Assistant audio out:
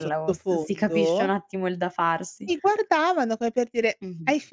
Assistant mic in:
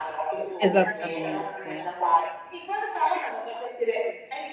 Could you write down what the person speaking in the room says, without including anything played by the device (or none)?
Esattamente.